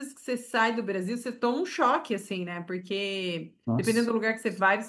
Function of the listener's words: listening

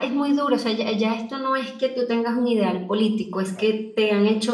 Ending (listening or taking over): listening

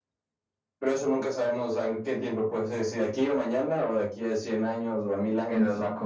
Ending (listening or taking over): taking over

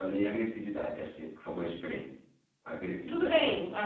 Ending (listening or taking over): taking over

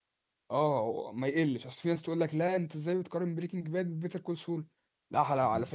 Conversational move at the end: listening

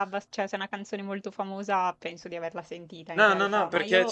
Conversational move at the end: taking over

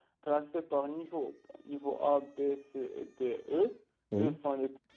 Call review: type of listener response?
listening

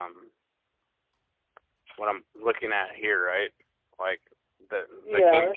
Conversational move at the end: taking over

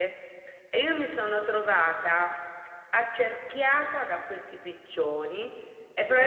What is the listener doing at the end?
listening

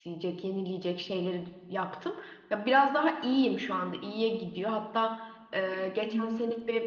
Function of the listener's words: listening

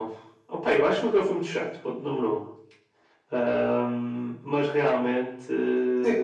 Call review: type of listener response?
taking over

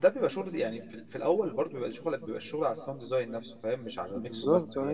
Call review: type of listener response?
taking over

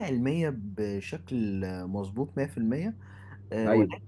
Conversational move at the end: listening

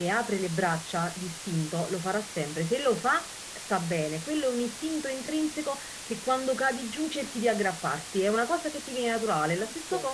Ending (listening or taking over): listening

